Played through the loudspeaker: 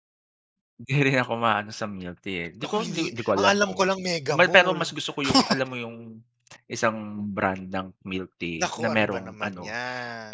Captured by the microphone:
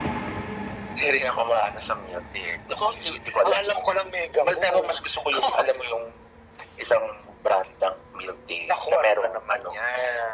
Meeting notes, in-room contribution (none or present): none